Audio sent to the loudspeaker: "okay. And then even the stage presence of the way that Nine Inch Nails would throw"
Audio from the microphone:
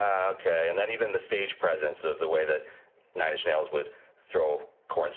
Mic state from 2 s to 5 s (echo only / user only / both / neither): echo only